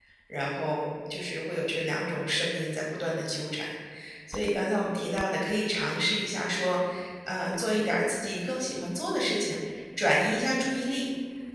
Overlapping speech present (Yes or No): No